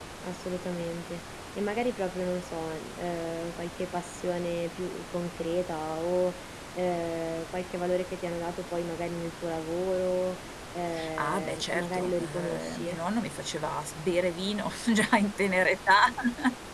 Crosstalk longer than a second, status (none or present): present